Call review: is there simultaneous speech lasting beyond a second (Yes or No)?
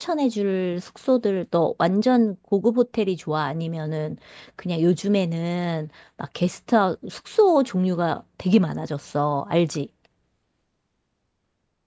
No